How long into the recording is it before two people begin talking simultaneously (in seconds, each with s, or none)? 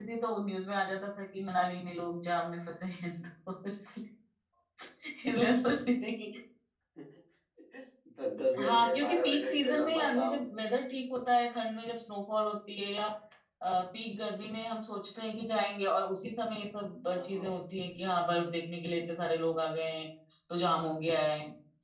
8.6 s